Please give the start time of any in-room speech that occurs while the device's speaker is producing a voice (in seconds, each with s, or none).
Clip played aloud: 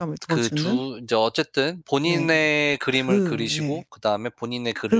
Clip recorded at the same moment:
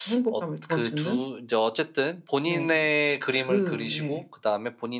none